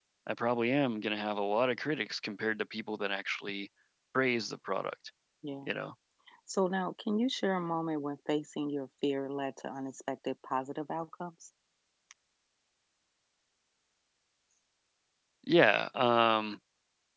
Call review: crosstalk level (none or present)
none